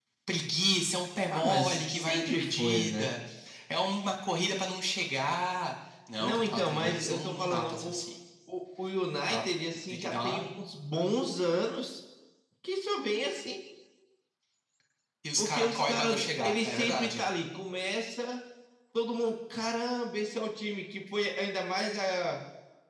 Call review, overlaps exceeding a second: present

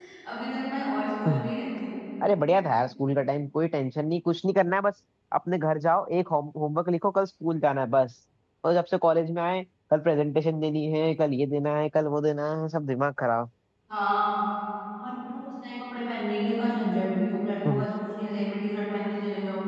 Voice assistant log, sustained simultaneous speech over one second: none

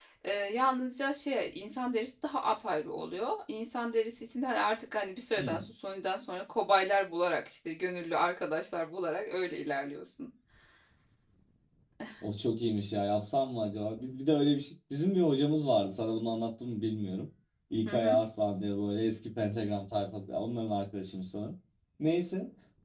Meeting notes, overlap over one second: none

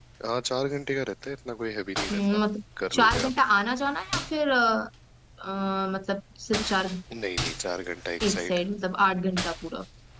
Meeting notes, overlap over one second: none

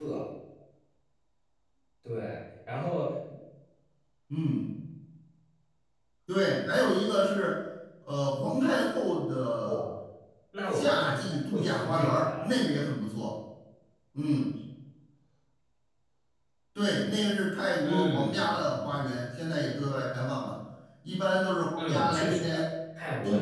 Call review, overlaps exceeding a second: present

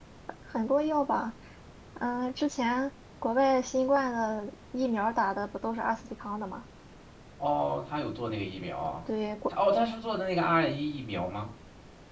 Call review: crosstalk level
none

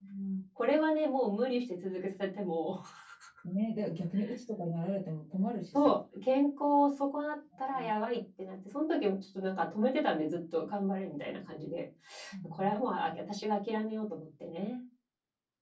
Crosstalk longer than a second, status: none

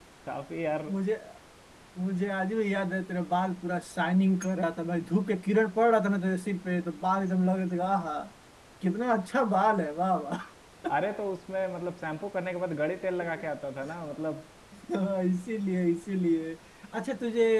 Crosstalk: none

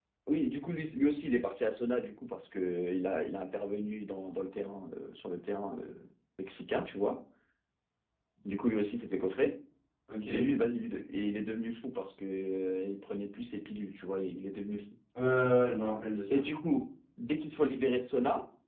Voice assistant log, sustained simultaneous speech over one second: none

